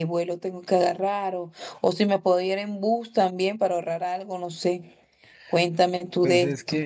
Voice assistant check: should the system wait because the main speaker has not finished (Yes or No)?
No